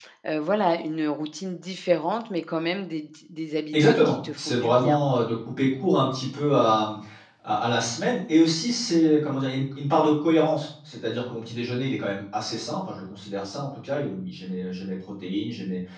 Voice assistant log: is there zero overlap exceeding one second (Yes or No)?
No